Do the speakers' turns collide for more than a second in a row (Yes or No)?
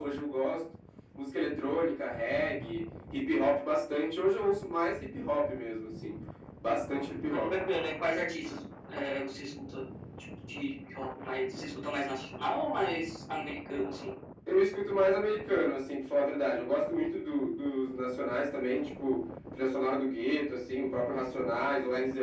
No